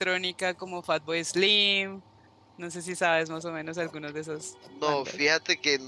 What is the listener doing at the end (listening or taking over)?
taking over